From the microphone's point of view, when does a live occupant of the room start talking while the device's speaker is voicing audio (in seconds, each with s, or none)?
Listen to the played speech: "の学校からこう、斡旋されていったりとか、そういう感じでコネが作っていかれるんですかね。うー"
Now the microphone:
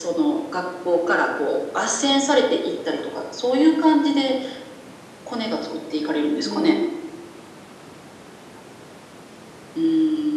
6.4 s